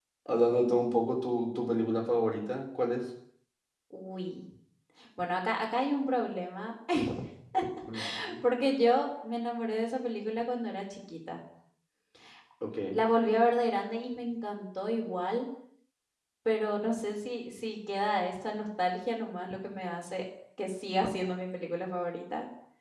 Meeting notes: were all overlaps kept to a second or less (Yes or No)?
Yes